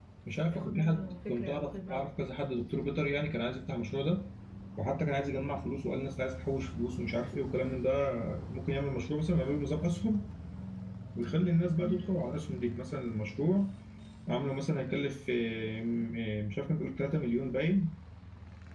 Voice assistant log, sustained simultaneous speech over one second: present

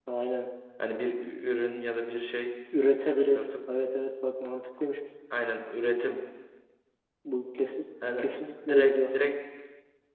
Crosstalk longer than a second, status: none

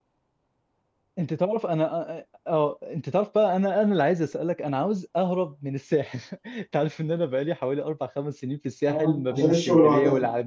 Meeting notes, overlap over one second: present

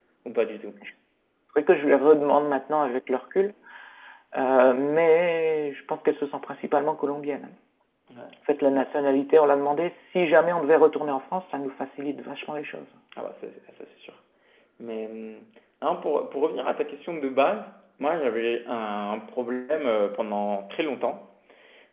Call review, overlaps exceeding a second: none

